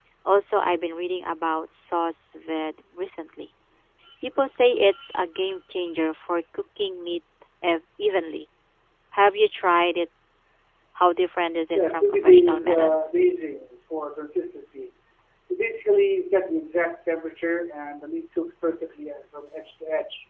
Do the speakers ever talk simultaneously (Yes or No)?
Yes